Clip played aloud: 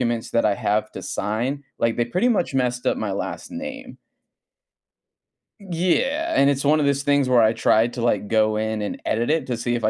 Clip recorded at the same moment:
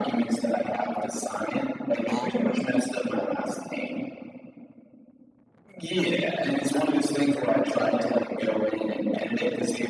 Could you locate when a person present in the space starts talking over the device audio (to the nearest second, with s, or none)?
2 s